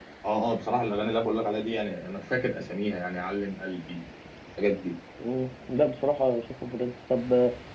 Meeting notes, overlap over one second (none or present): none